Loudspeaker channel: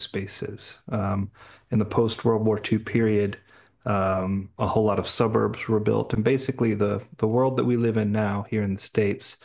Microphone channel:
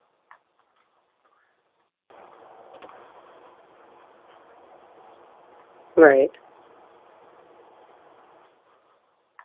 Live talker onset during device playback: 6 s

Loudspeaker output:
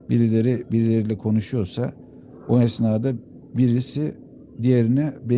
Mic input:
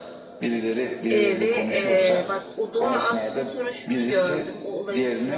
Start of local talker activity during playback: 1 s

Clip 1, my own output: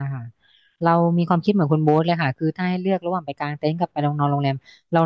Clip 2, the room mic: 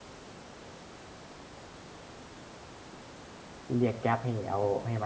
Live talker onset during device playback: 4 s

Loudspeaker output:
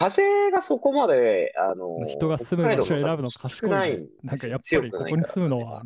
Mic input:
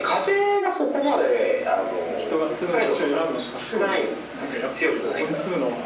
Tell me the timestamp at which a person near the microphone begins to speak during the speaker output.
none

